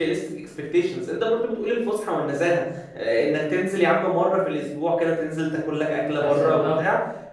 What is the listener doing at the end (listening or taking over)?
listening